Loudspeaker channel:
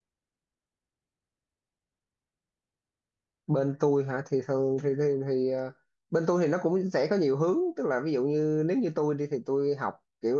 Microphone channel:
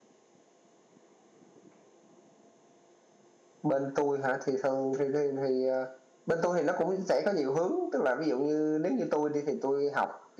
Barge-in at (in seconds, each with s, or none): none